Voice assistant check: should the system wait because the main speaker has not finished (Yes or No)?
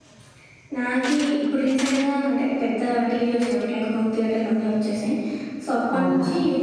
Yes